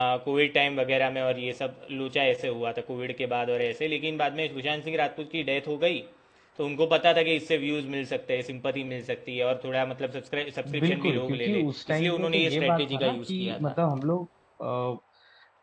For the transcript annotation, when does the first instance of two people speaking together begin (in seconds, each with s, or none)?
10.6 s